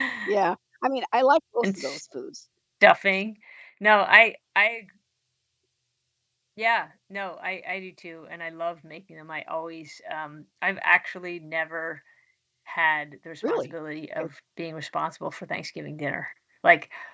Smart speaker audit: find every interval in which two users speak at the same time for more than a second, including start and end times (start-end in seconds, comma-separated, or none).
none